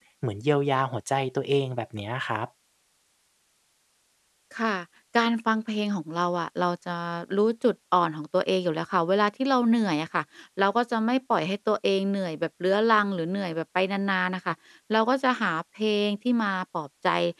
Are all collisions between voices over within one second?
Yes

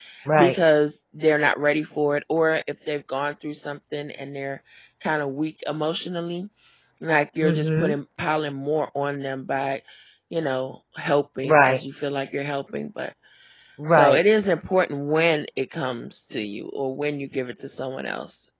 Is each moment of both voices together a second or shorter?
Yes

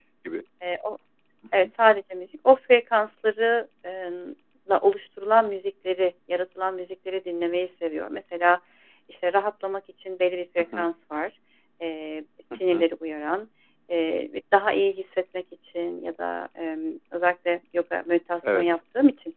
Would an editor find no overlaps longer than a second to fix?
Yes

